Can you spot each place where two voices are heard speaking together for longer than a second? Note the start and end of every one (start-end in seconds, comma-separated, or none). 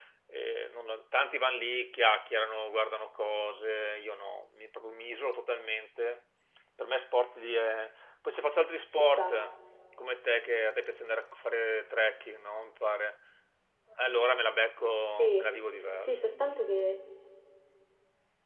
none